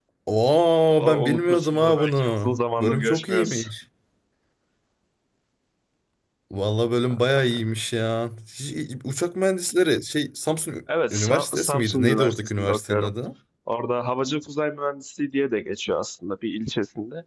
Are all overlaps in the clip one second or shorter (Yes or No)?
No